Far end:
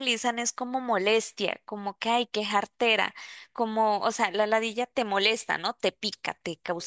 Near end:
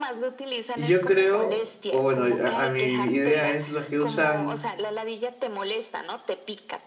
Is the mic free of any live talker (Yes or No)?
No